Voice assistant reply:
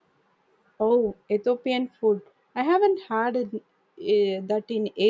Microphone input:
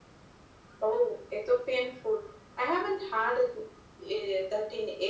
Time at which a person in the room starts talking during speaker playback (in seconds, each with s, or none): none